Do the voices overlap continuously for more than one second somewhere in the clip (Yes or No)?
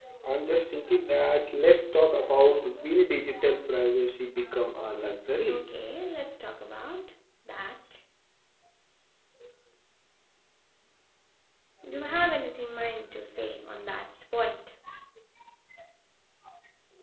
No